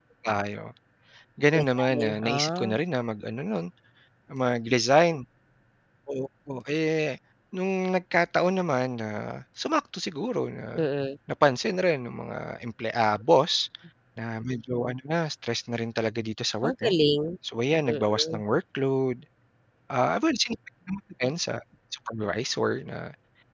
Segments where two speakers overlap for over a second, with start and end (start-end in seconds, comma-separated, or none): 1.5-2.8